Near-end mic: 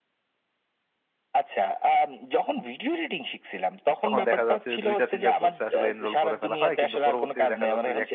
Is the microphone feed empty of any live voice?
No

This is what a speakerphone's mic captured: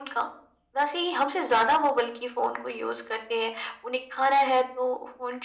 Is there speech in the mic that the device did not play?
No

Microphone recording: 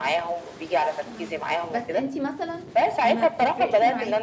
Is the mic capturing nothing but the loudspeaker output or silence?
No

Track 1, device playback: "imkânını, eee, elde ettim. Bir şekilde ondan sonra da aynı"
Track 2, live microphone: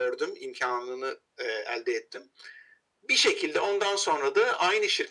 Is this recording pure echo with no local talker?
Yes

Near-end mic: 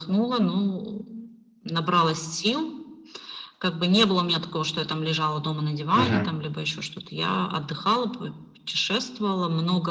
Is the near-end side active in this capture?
Yes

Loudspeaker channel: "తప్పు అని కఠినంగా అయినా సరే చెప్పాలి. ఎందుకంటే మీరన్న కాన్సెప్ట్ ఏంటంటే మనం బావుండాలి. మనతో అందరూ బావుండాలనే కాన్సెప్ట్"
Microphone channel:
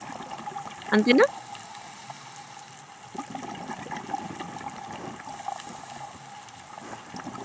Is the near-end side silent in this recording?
No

